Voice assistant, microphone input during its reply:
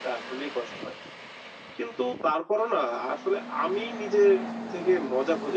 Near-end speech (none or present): none